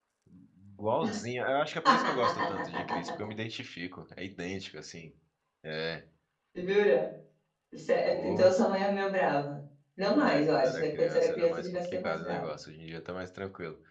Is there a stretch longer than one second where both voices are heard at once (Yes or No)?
Yes